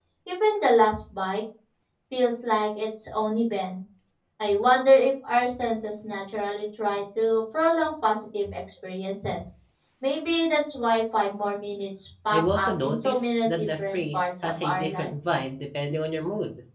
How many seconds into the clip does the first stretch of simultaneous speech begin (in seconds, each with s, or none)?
12.3 s